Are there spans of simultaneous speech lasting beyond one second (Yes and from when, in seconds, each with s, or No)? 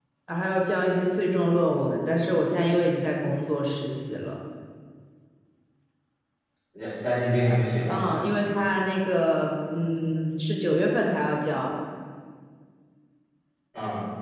No